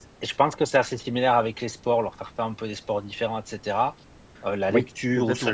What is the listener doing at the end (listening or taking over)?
listening